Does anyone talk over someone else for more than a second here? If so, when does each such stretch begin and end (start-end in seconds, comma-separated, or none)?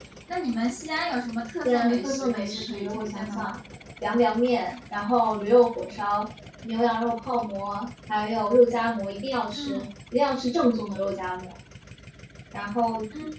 1.6-3.5